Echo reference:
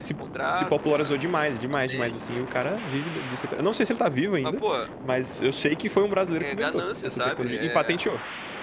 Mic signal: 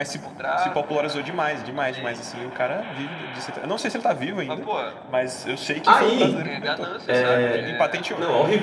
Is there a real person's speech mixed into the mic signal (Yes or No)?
Yes